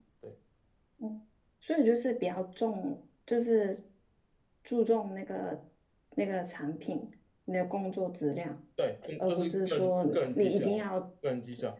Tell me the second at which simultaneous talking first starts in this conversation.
9 s

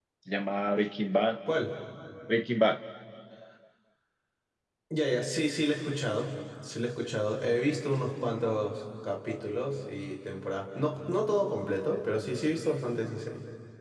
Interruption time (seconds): none

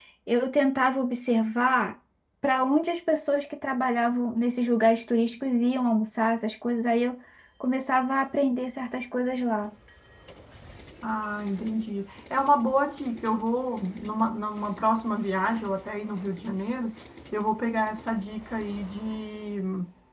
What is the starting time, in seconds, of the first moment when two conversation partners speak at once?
none

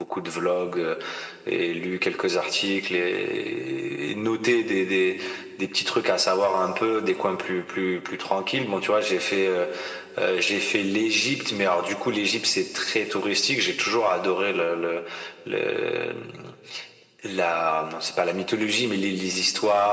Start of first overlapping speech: none

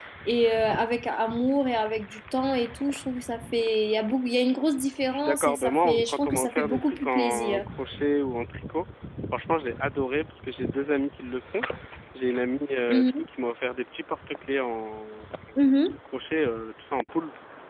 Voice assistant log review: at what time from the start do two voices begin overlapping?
5 s

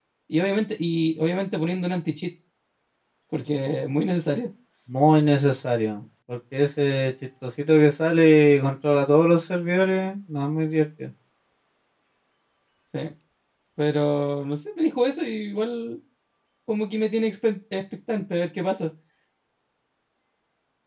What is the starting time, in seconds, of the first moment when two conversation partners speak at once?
none

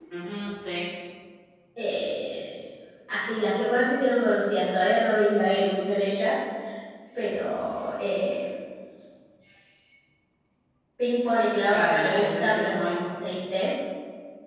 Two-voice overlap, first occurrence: 12 s

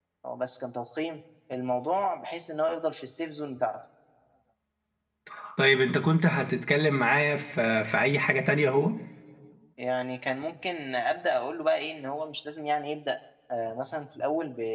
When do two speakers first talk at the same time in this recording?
none

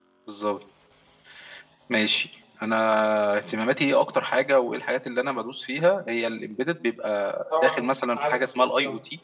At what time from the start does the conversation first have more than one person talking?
8 s

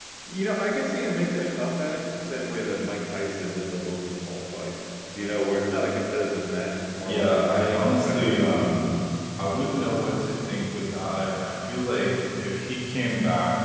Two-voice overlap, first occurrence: 7 s

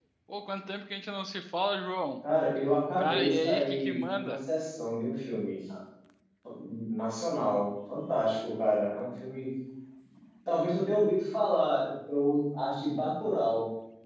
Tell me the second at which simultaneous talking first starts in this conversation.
3 s

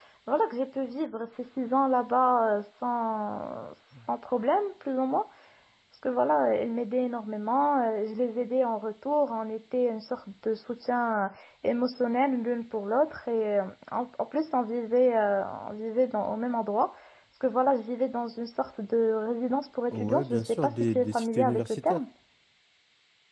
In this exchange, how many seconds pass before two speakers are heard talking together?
20 s

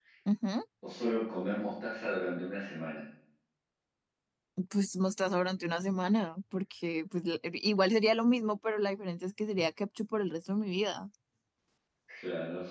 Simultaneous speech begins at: none

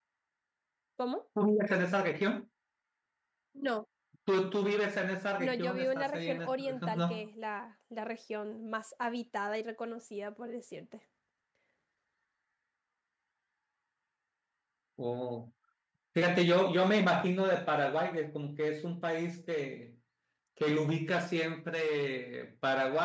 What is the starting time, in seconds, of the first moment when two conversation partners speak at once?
5 s

